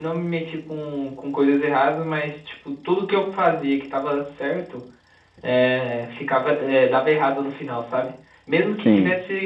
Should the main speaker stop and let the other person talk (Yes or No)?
No